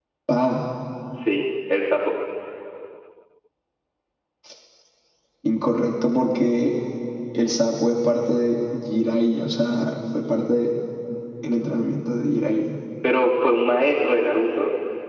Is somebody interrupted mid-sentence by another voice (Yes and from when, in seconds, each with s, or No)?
No